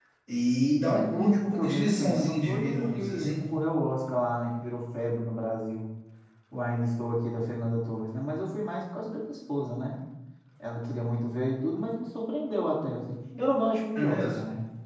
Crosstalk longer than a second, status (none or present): present